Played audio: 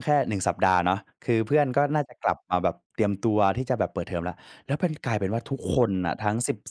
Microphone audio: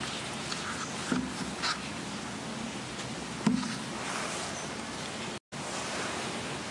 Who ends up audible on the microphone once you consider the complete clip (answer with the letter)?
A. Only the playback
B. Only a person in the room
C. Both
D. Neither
D